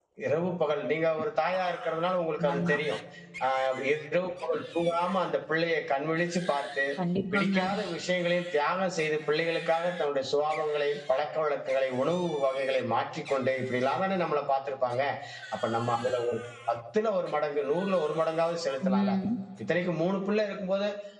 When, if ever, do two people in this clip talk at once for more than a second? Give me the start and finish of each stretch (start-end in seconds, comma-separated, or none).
none